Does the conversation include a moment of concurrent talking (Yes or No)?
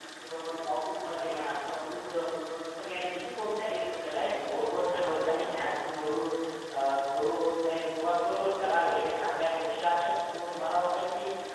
Yes